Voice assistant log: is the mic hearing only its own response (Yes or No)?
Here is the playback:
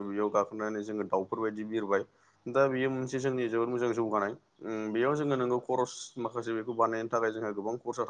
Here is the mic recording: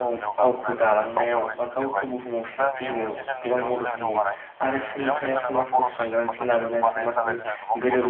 No